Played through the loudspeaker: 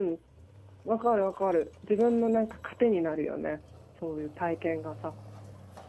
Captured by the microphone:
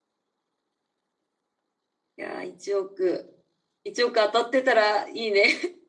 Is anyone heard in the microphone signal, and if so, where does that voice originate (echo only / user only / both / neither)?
user only